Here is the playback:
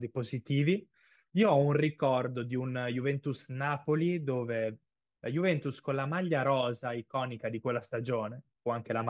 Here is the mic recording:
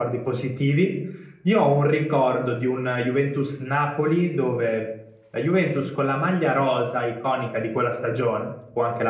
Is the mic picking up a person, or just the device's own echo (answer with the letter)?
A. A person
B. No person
B